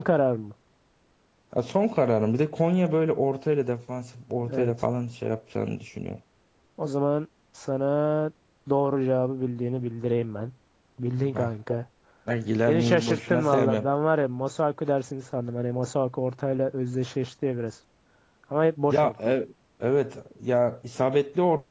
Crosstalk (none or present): present